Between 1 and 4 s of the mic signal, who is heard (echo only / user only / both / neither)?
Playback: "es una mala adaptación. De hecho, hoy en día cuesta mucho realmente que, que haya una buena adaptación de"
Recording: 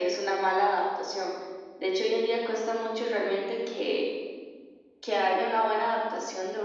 echo only